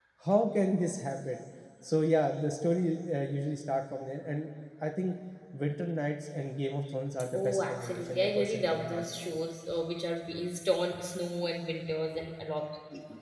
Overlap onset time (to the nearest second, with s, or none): 7 s